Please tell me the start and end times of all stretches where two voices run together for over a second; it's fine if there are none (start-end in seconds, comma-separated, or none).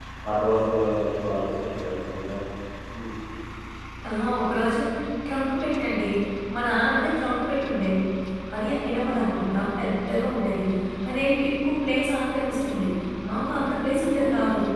none